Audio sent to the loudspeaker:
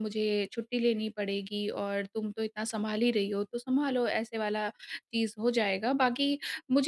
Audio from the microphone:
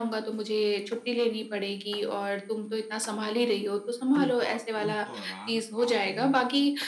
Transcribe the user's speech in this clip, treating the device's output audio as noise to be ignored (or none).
उस दौ उस दौरान आपने